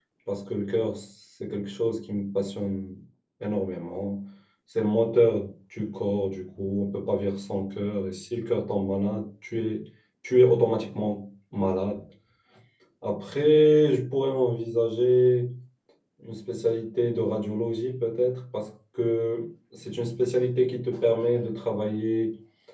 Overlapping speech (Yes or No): No